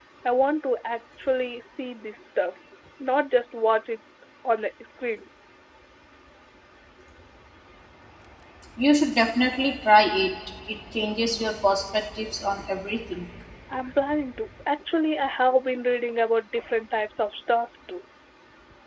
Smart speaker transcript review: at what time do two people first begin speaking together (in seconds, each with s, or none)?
none